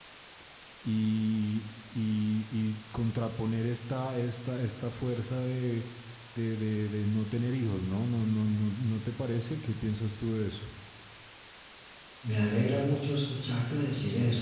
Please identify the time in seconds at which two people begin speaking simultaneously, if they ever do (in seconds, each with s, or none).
none